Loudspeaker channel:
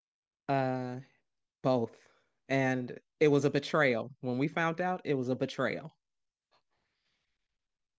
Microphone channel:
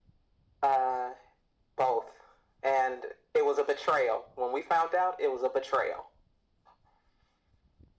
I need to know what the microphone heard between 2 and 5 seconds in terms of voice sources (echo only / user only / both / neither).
echo only